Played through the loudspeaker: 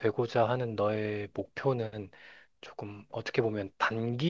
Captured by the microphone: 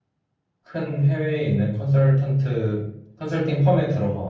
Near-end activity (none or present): present